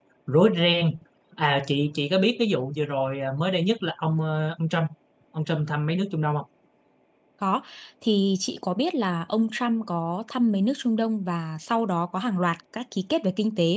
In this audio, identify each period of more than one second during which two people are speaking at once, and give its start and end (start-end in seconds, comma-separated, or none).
none